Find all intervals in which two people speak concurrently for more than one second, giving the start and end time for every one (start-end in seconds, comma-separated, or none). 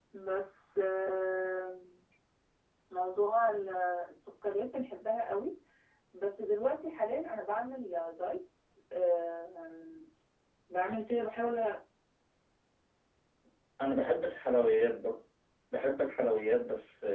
none